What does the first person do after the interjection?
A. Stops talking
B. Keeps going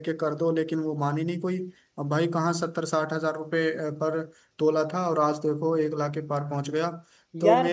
A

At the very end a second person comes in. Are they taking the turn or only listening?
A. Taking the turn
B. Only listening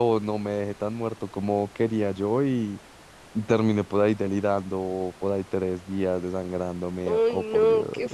A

